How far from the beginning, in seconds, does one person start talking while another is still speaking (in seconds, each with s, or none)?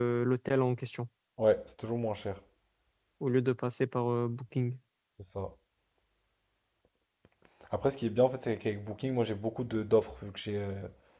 none